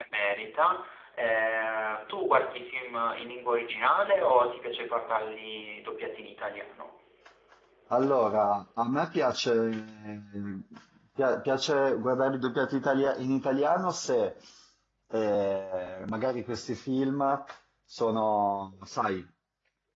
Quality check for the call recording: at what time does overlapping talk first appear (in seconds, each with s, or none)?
none